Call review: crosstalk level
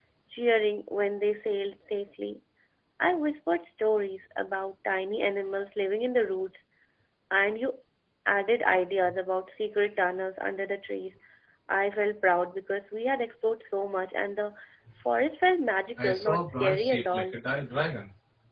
present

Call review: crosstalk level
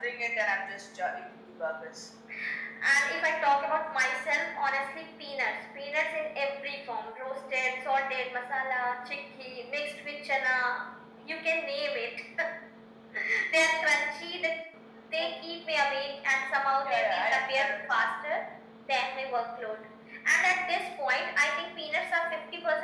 present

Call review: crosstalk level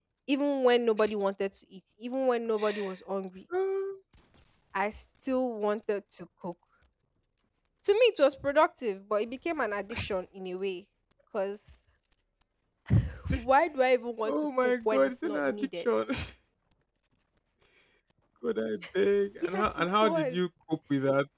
present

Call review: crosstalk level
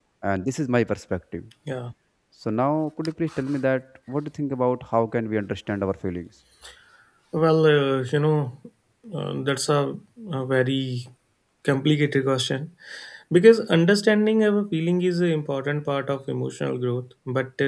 none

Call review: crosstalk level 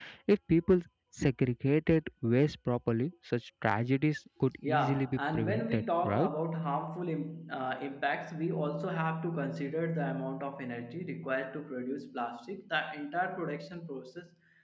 present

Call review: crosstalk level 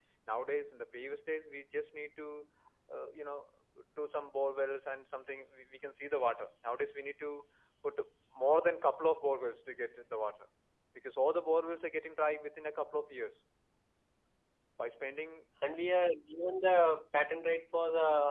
none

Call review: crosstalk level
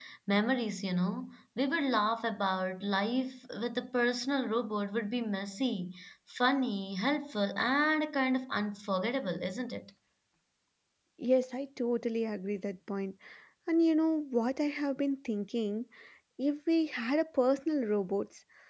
none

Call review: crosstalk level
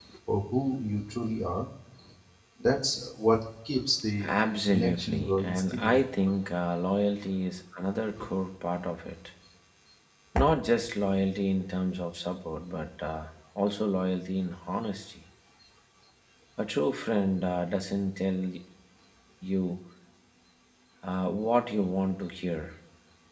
present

